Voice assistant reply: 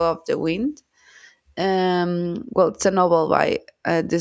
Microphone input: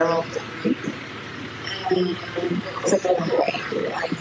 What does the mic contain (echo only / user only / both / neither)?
echo only